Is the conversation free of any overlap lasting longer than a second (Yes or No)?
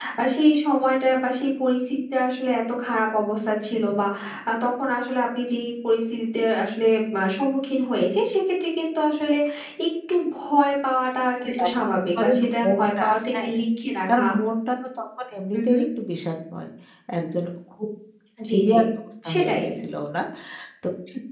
No